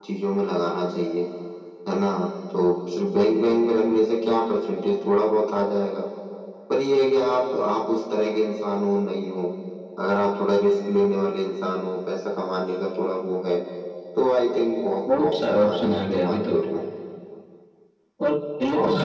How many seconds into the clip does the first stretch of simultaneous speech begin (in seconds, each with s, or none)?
15.2 s